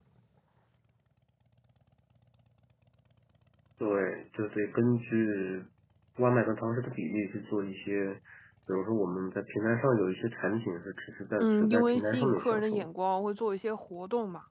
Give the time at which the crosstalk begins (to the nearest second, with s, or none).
11 s